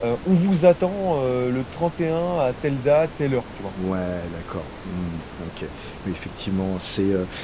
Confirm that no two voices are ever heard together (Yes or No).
Yes